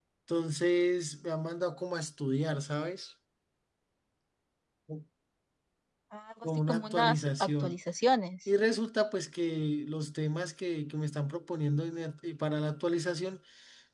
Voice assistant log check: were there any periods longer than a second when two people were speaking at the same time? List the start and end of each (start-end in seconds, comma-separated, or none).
6.4-7.8